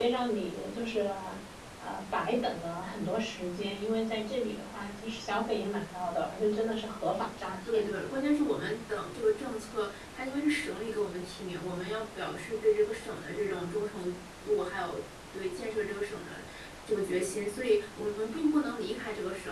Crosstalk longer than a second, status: none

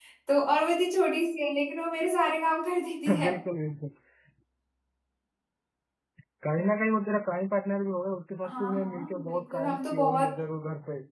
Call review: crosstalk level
present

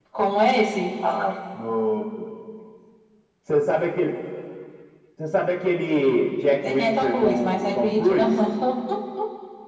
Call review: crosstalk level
present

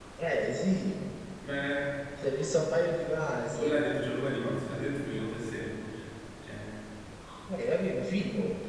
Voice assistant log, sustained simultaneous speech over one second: none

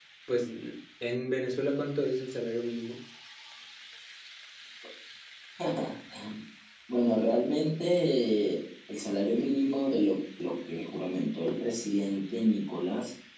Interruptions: none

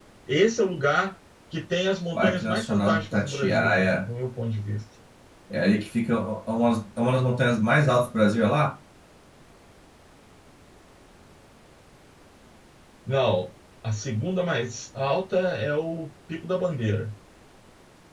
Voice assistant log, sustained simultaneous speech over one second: present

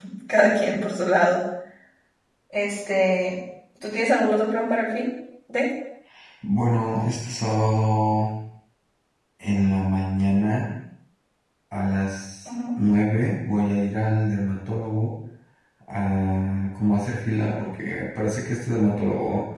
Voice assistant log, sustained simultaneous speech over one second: none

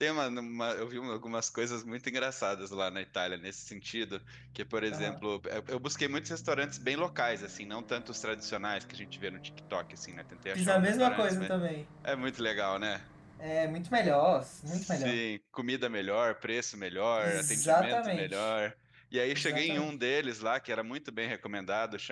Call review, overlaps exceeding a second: present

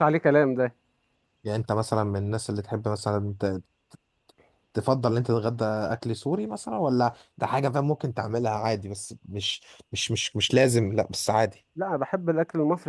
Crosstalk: none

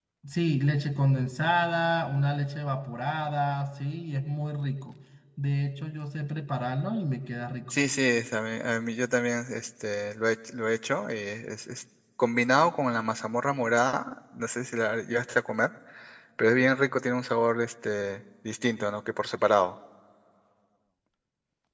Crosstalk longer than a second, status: none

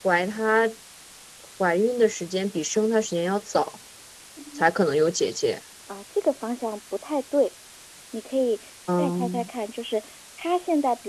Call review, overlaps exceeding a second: none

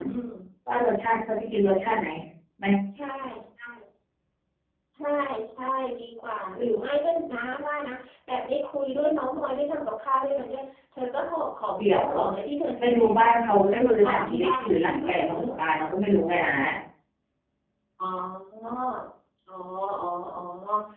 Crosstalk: present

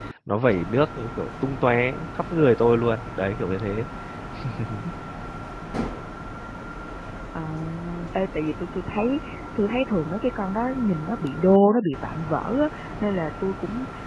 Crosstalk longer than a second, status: none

